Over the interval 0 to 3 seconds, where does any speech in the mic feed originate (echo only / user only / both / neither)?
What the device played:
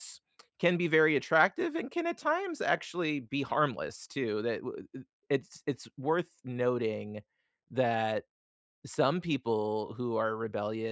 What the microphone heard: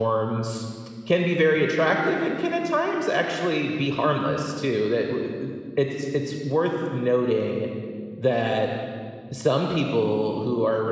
echo only